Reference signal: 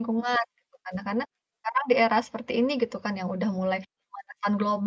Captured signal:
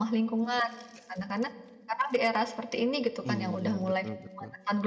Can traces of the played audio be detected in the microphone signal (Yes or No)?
Yes